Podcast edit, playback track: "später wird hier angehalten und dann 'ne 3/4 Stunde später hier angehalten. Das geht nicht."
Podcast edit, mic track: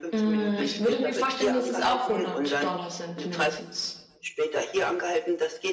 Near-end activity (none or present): present